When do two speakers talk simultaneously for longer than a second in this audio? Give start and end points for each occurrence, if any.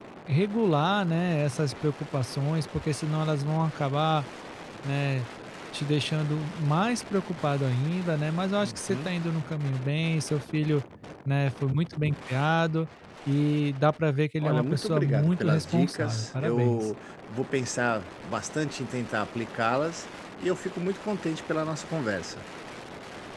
14.4-16.9

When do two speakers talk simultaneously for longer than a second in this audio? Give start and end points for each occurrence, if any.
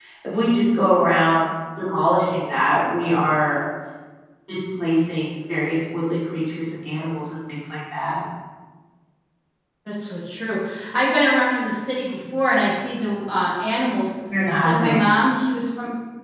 none

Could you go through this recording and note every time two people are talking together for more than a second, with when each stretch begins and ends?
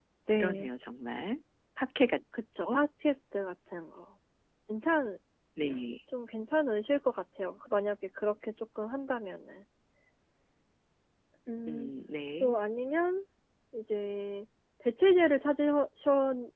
none

